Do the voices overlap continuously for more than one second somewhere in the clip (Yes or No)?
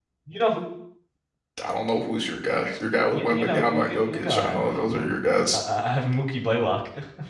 Yes